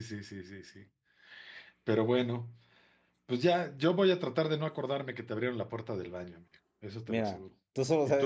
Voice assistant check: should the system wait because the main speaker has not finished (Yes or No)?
No